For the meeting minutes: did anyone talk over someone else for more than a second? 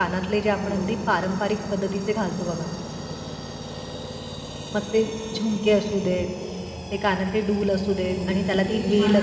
Yes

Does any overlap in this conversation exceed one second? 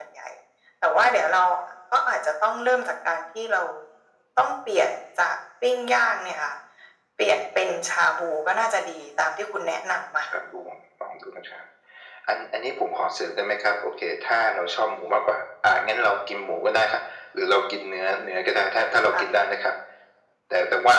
No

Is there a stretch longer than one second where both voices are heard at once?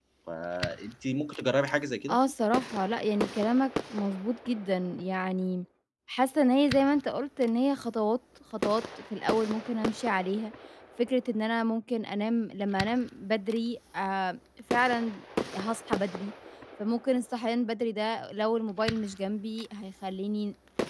No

